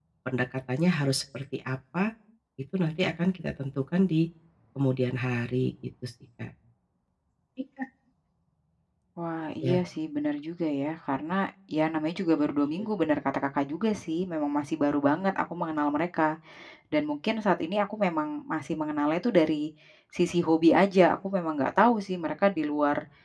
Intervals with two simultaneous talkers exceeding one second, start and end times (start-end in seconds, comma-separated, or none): none